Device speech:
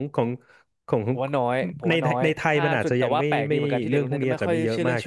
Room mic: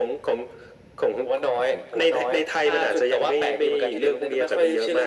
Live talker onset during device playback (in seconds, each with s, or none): none